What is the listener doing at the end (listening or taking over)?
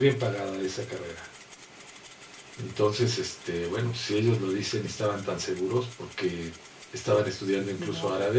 listening